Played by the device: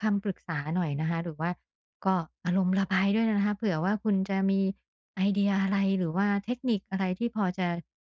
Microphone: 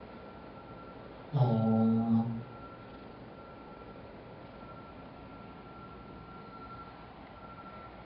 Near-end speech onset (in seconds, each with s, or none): 1.3 s